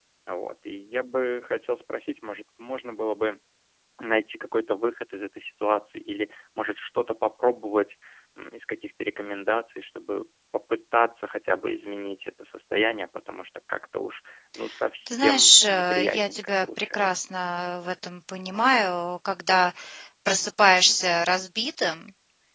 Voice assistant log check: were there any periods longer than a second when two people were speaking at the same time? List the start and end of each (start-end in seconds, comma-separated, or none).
15.1-17.2